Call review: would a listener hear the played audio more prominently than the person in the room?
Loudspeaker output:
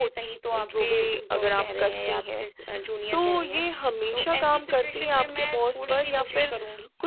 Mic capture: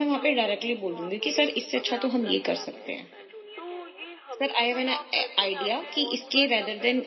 No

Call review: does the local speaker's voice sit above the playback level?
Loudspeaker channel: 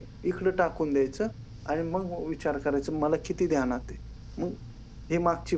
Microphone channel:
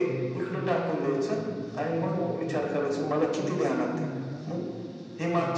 No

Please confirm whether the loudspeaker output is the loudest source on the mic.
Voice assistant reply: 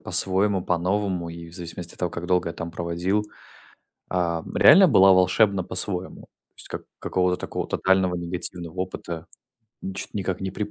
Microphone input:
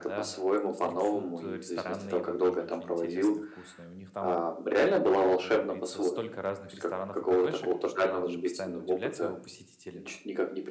Yes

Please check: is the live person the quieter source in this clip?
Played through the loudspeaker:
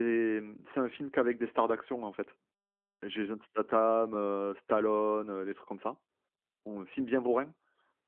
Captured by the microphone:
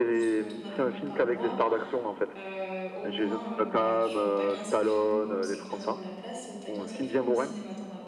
Yes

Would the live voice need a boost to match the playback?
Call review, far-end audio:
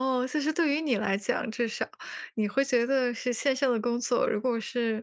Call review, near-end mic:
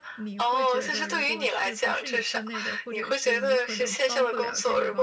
Yes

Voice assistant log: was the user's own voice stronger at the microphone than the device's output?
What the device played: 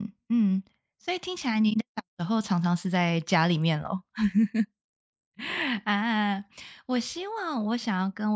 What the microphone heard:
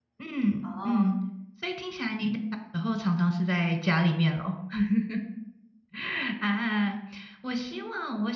No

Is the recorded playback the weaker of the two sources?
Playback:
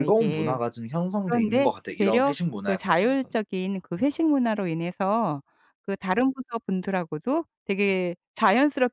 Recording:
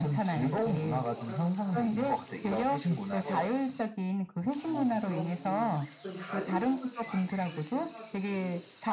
No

